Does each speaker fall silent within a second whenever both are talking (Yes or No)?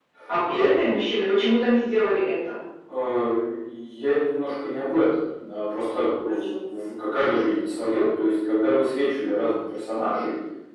Yes